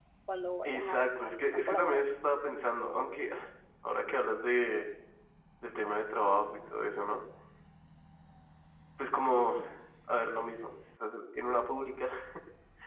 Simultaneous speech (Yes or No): Yes